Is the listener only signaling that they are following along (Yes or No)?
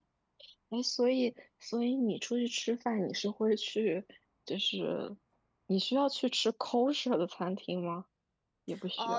No